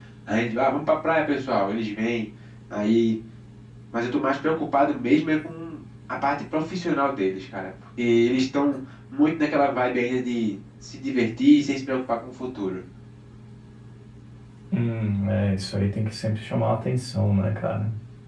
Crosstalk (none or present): none